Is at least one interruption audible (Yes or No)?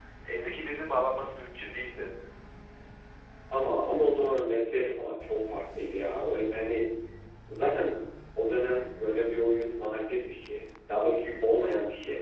No